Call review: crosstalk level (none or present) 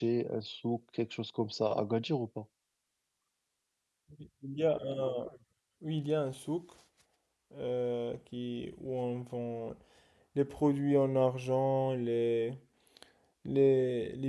none